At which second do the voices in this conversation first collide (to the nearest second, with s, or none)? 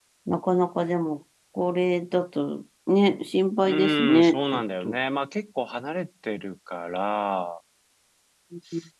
4 s